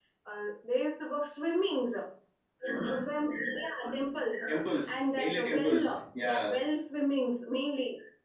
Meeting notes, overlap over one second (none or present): present